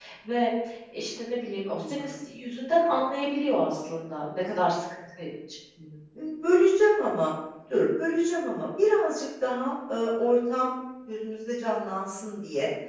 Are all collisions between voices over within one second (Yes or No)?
Yes